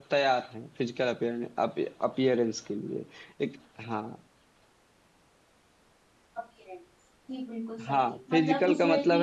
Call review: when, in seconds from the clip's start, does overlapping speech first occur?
8 s

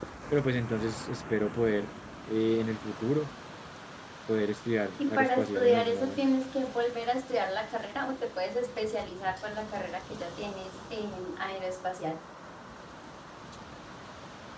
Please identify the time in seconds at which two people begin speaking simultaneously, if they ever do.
5 s

